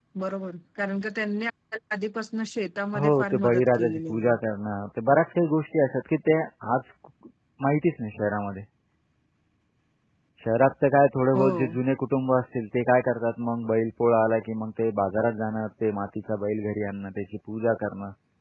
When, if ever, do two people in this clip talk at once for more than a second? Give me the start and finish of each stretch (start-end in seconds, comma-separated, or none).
2.9-4.3